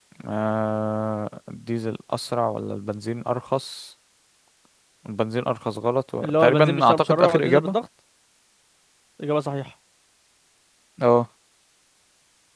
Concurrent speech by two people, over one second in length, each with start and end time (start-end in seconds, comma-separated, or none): 6.2-7.8